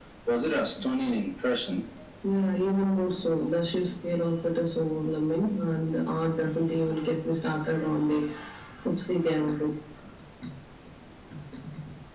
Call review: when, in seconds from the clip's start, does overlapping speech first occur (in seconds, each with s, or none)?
none